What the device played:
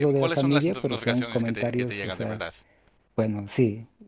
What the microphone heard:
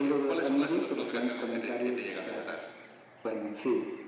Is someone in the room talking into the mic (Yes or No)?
No